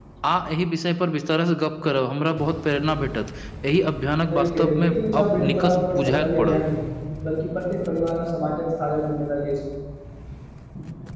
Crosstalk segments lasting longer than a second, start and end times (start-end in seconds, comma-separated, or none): 4.3-6.6